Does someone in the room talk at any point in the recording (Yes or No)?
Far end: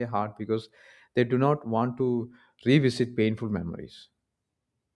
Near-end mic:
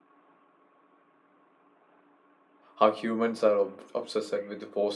Yes